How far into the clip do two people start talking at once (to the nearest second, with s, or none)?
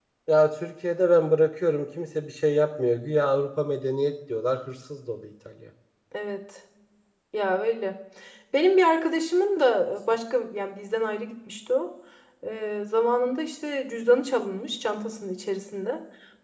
none